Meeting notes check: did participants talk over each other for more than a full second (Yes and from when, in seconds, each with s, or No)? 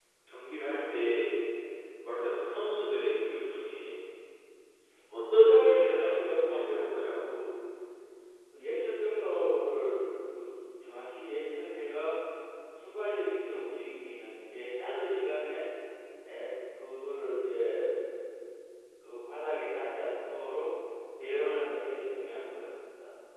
Yes, from 5.3 s